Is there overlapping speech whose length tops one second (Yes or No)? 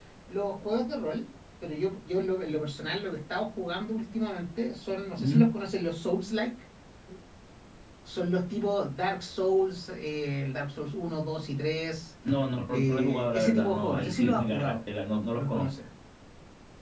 Yes